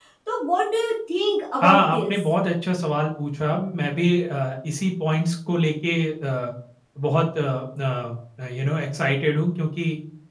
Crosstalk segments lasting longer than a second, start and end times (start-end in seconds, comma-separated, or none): none